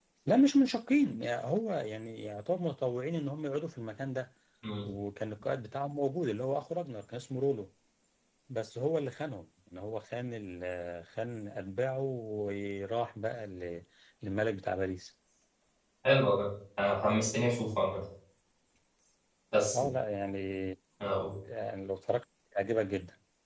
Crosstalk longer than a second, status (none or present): none